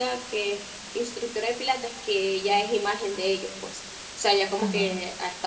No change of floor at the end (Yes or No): Yes